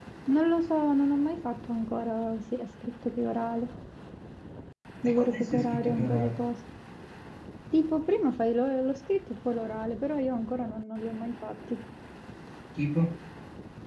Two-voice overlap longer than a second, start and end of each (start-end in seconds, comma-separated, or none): 5.1-6.3